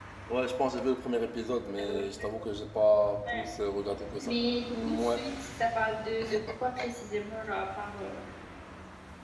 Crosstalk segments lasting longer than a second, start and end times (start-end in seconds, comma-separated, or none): none